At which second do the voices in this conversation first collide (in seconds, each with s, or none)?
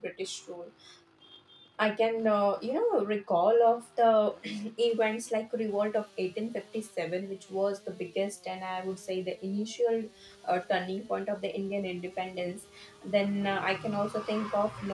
none